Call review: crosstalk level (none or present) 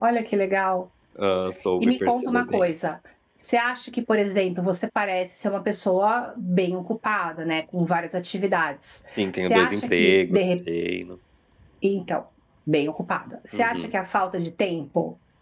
present